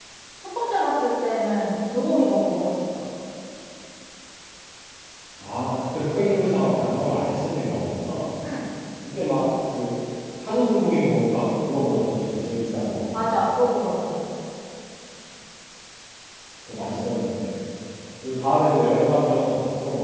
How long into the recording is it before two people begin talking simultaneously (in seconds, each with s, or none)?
none